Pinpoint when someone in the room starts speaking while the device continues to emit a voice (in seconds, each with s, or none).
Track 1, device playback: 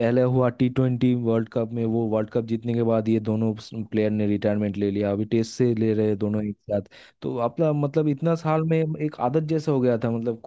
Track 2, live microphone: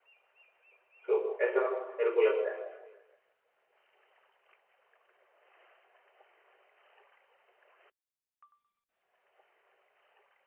1.1 s